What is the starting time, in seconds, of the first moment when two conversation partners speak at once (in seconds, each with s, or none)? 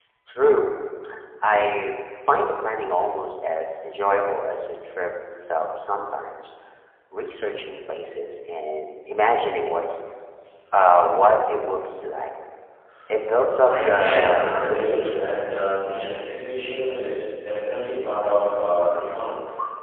13.6 s